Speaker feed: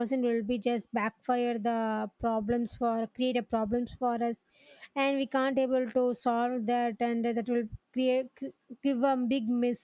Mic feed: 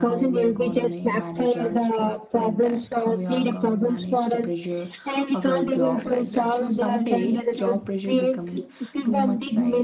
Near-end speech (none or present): present